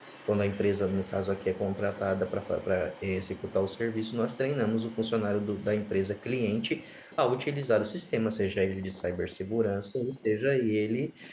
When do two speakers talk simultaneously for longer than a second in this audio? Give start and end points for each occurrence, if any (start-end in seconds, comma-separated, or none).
none